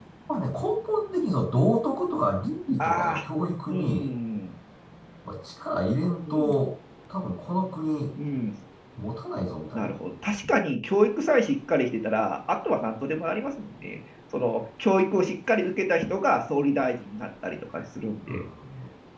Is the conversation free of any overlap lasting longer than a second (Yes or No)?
Yes